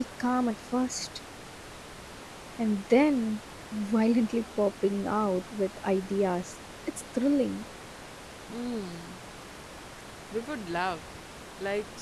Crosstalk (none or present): none